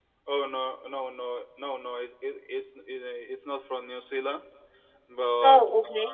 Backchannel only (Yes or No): Yes